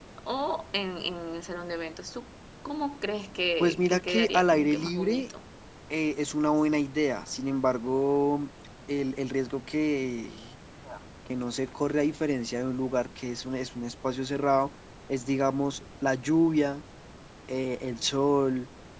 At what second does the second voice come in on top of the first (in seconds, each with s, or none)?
3.6 s